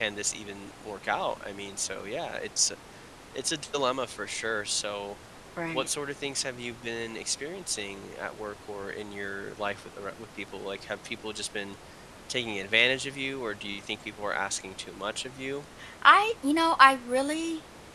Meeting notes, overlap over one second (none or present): none